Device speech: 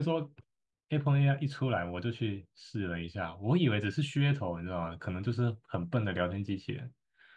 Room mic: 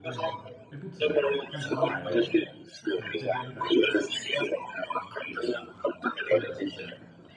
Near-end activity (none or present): present